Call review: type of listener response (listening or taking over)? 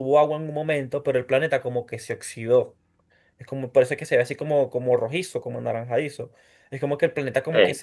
listening